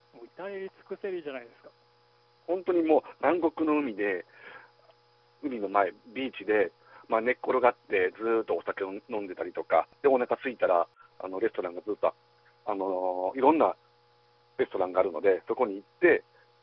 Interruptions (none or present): none